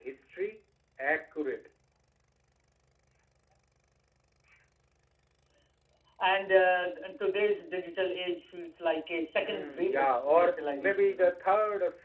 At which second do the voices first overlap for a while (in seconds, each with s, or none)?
9.4 s